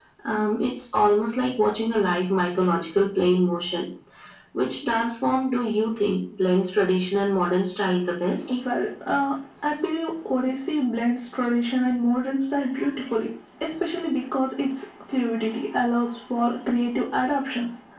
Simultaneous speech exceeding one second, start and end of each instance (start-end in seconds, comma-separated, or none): none